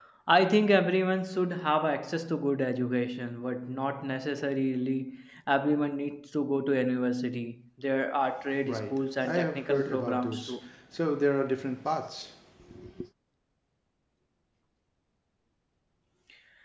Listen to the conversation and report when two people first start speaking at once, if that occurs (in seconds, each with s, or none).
8.6 s